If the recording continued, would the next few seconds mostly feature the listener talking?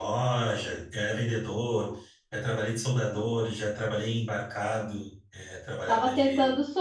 Yes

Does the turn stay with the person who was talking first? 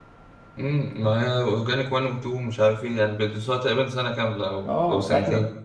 No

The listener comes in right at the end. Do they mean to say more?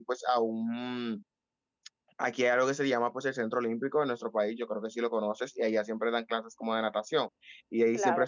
No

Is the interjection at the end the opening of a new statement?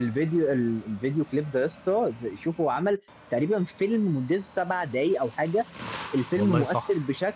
No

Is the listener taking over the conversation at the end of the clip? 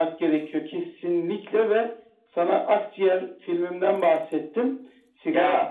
No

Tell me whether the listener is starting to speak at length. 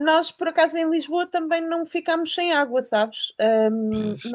No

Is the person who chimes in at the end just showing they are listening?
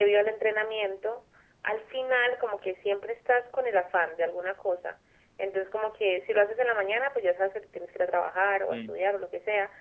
Yes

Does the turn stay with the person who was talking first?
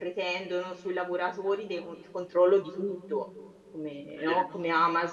Yes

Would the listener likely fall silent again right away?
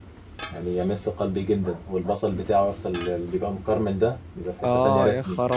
No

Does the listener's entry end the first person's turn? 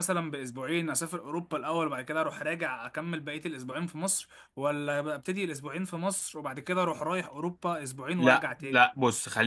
Yes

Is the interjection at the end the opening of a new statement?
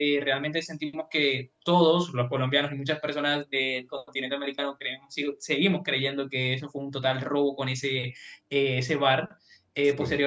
No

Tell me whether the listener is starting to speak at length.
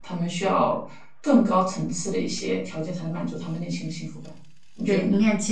Yes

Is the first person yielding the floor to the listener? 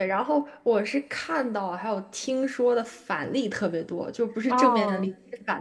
No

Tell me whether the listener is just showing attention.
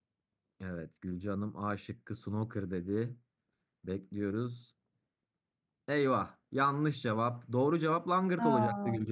Yes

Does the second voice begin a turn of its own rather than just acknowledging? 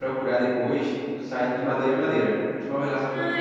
Yes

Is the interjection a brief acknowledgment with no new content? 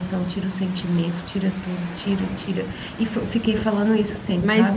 No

